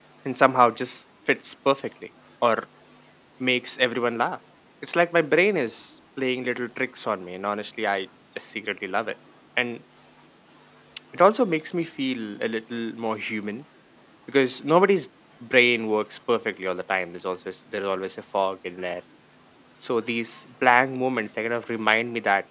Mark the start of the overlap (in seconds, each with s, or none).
none